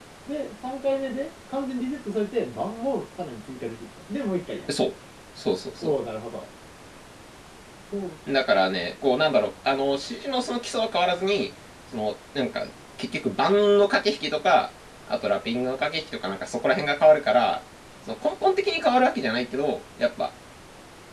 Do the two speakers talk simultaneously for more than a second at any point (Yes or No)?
No